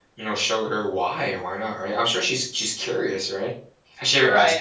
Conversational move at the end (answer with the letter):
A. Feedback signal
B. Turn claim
B